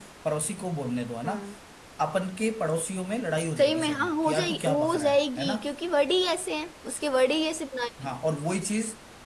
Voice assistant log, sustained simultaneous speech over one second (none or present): present